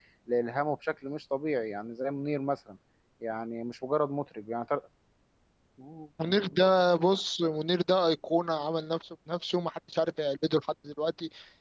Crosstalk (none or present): none